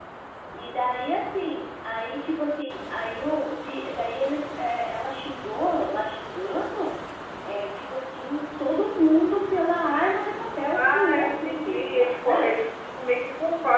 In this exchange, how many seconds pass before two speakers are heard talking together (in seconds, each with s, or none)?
10.7 s